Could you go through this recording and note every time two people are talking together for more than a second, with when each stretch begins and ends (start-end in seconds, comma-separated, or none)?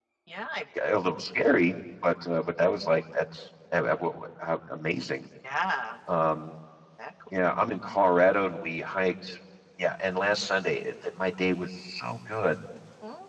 none